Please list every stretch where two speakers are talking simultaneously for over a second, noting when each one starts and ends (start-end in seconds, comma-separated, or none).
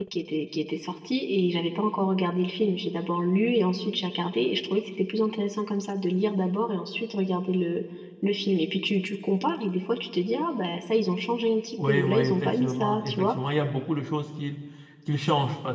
11.9-13.3